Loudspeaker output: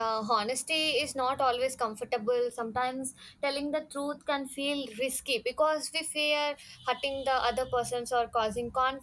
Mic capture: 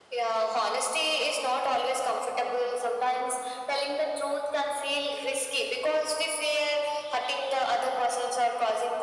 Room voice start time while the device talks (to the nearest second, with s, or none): none